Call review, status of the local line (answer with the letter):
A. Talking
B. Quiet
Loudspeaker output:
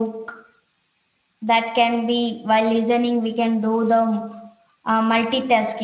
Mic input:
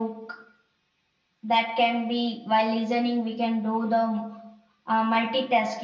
B